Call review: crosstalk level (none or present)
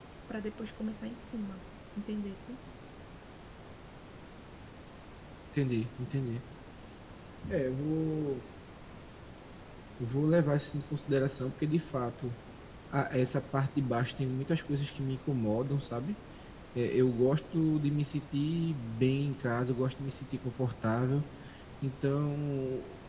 none